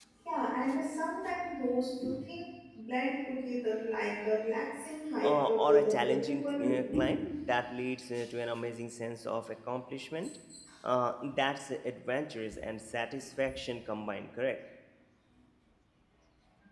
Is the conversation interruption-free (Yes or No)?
No